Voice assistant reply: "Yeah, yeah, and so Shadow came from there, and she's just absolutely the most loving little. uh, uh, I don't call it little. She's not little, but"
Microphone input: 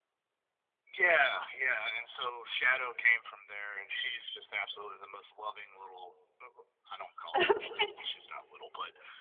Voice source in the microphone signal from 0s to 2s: echo only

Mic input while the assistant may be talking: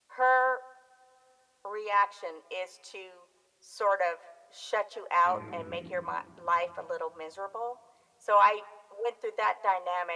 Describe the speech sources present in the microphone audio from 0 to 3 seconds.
echo only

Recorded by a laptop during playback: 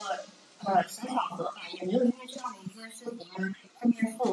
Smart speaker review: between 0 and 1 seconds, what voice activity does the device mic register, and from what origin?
echo only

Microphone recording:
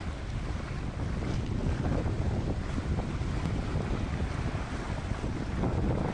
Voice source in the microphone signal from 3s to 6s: neither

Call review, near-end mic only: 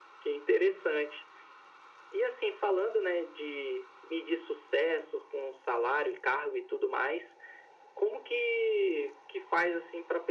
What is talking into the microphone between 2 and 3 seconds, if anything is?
echo only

